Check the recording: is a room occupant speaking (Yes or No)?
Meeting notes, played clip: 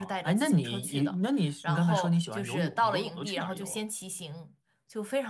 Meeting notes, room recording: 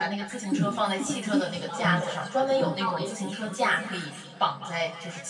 Yes